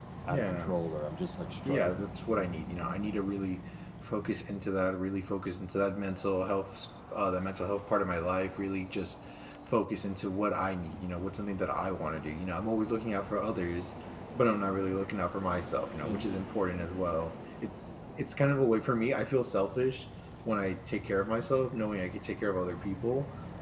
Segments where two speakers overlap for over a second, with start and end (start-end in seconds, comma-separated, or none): none